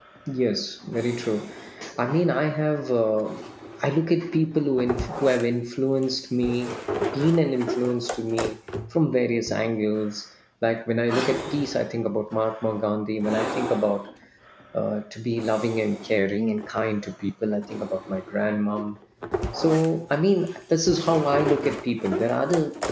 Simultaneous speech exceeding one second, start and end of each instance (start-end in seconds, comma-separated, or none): none